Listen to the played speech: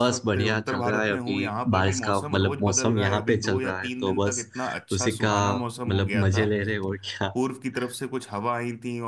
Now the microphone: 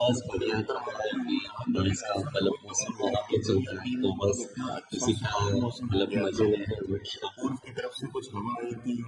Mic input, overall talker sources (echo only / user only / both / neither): echo only